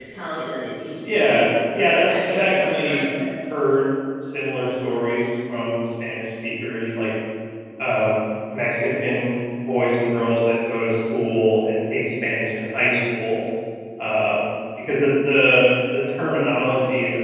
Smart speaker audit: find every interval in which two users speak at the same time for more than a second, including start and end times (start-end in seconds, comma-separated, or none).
1.0-3.0